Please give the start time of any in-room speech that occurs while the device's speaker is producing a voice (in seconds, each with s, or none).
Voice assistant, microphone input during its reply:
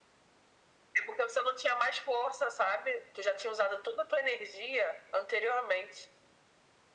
none